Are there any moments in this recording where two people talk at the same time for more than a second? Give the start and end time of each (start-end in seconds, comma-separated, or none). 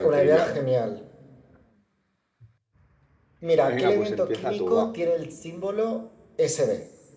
3.6-4.9